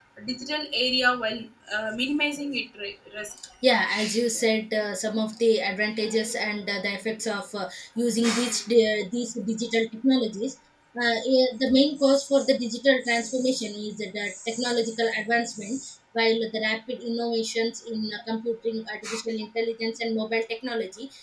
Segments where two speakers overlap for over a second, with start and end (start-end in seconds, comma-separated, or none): none